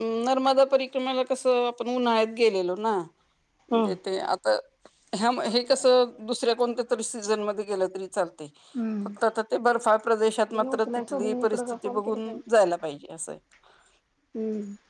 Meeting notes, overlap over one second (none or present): present